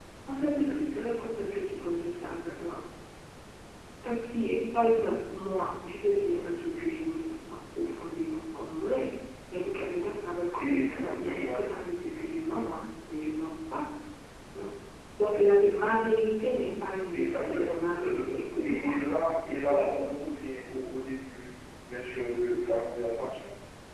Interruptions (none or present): present